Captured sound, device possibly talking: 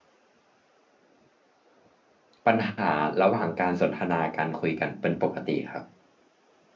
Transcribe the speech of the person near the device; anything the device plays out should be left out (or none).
ปัญหาระหว่างการสนทนาการคุยกันเป็นปกติครับ